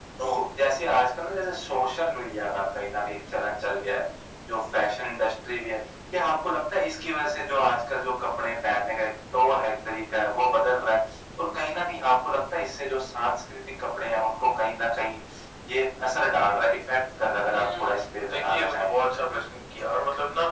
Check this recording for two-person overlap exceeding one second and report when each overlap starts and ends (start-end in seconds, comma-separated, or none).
17.5-18.9